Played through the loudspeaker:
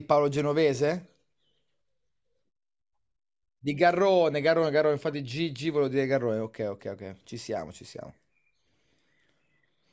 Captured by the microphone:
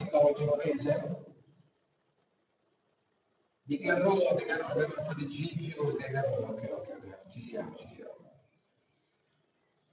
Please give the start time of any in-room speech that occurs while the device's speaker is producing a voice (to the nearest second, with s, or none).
none